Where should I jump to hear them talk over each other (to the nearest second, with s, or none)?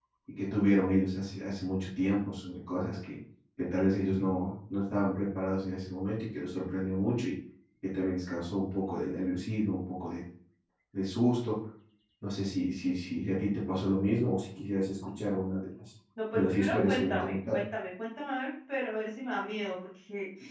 16 s